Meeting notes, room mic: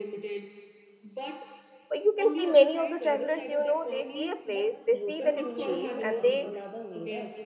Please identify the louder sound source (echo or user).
user